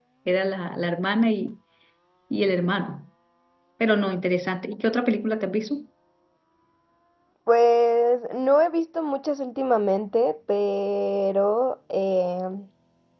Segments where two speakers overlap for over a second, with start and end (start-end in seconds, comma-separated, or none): none